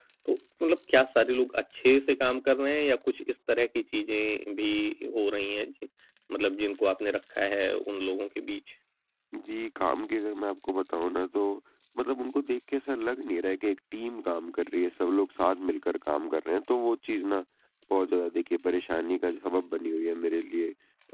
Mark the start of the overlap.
none

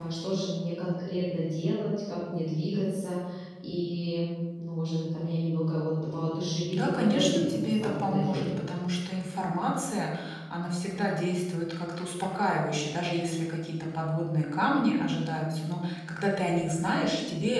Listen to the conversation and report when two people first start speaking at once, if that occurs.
6.7 s

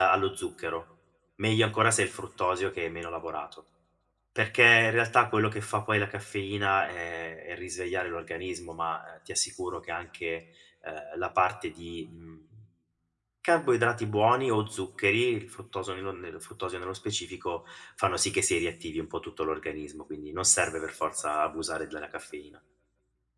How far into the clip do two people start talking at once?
none

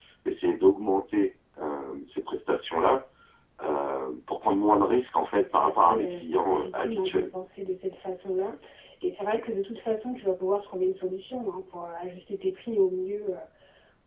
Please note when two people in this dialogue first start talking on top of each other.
5.3 s

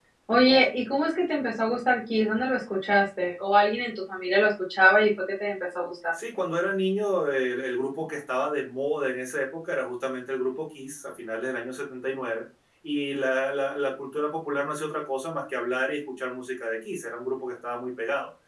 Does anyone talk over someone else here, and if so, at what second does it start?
none

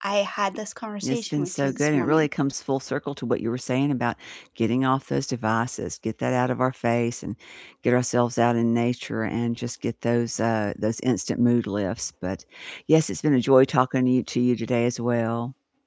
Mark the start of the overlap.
1.0 s

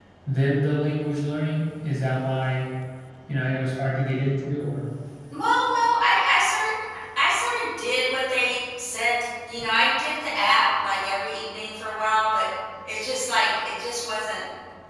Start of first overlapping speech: none

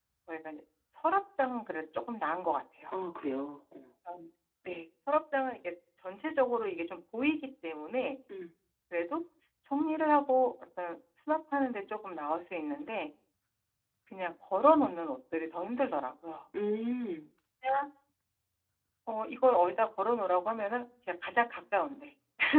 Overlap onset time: none

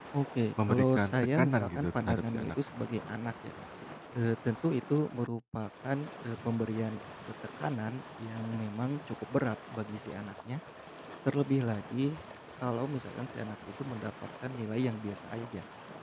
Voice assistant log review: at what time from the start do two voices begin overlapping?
0.7 s

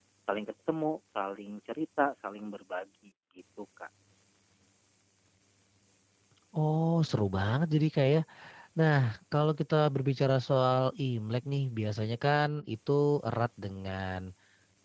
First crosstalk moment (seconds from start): none

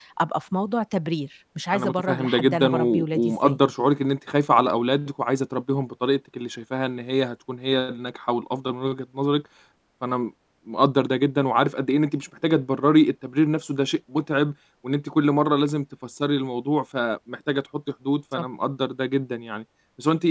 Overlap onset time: 1.7 s

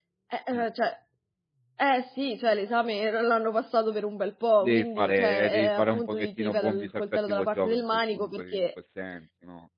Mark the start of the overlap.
4.6 s

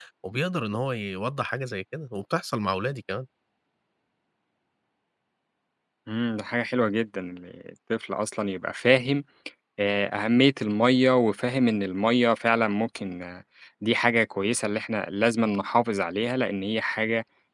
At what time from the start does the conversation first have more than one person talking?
none

